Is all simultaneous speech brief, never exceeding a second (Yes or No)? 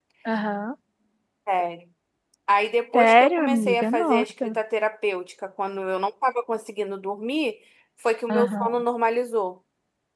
No